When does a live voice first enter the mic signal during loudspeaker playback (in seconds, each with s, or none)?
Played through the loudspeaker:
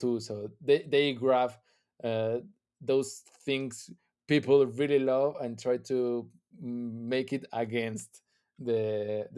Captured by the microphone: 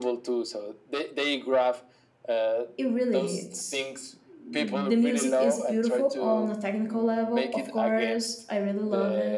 2.8 s